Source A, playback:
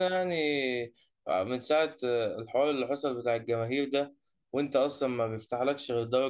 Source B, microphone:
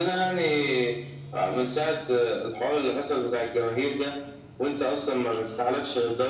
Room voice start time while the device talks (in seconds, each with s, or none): none